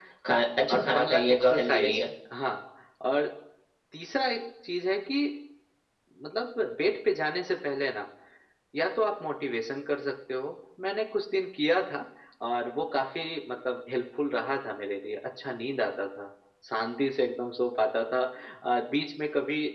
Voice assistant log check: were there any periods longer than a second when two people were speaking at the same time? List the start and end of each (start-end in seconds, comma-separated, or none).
0.7-2.0